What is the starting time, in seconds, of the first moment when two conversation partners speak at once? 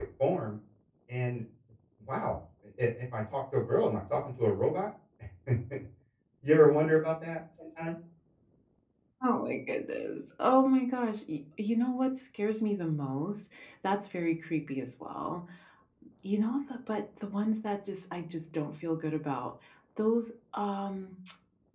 none

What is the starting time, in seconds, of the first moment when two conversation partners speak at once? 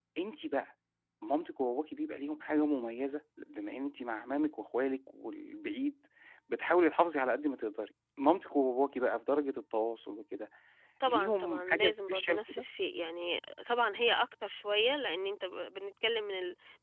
11.1 s

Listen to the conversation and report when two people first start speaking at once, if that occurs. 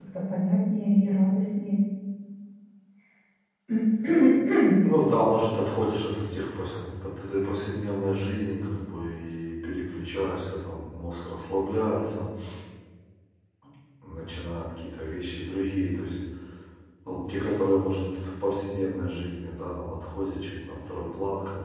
none

